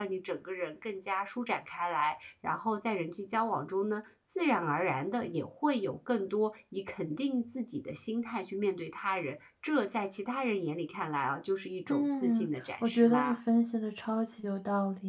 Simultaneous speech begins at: 12 s

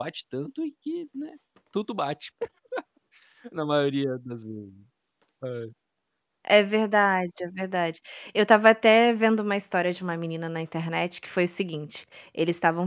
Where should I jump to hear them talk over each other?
none

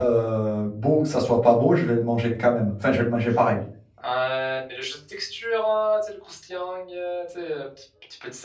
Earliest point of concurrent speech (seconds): none

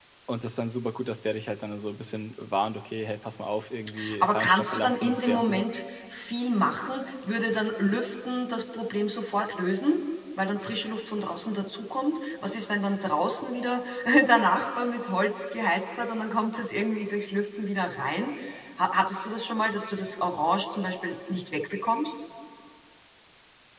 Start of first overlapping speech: 4 s

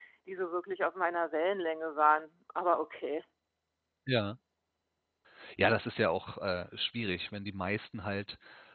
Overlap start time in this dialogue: none

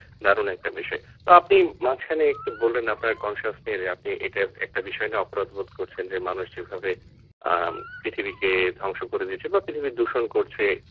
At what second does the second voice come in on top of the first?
none

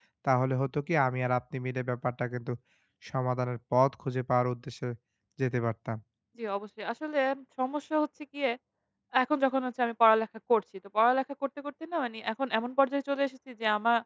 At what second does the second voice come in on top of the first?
none

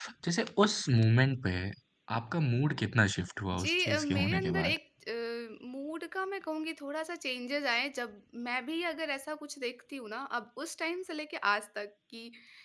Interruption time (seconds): 4 s

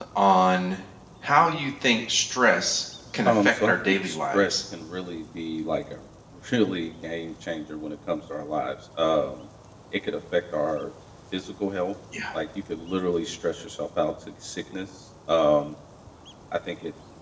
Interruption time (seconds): 3 s

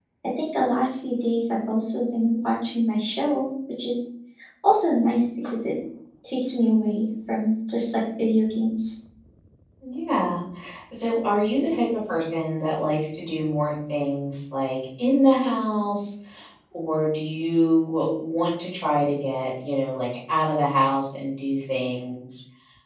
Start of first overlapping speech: none

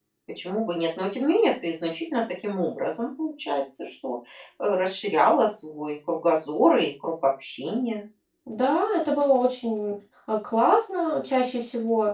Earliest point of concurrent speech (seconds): none

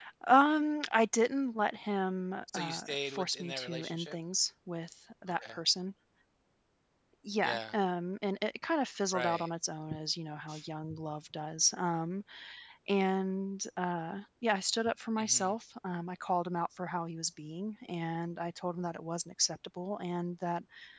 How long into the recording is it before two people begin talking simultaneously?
3 s

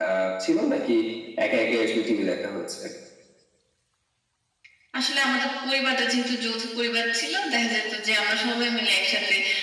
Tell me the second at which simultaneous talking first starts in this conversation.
none

